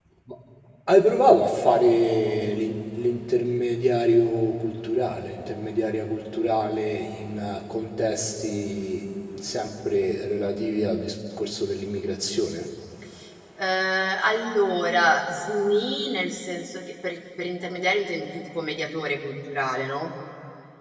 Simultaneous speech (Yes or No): No